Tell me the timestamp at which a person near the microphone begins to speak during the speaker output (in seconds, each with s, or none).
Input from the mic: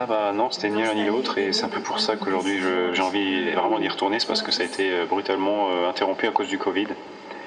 0.6 s